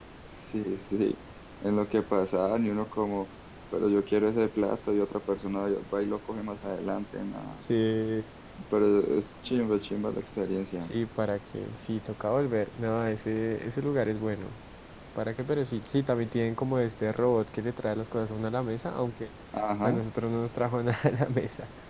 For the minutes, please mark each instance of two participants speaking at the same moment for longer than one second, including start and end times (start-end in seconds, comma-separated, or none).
none